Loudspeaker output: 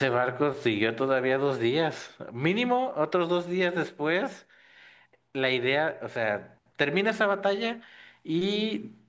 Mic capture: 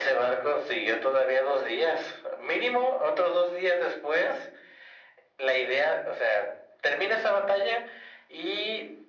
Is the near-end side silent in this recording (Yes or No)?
Yes